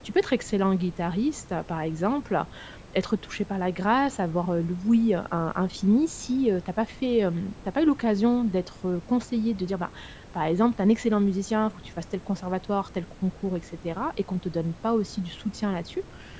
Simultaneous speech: No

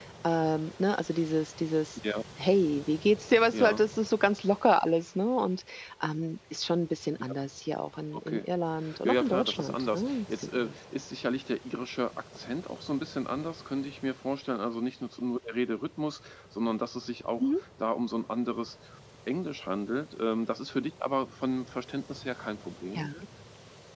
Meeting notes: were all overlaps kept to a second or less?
No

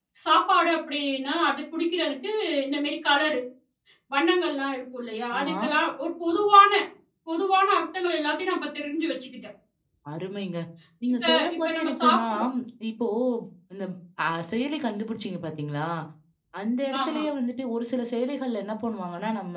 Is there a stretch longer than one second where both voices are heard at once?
Yes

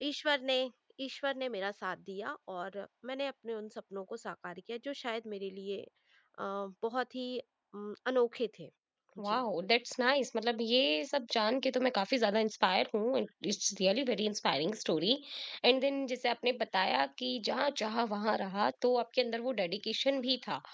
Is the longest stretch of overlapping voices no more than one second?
Yes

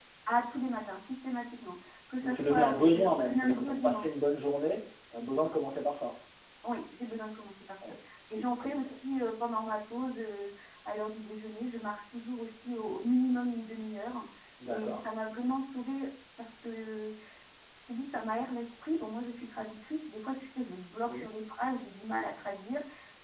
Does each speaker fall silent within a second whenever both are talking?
No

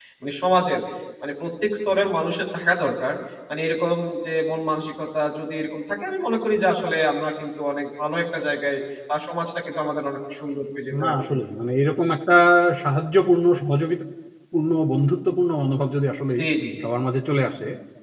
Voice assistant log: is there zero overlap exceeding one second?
Yes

